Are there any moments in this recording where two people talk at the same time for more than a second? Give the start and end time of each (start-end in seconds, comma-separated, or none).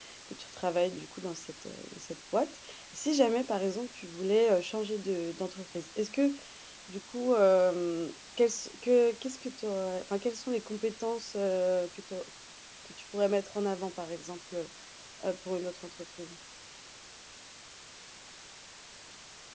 none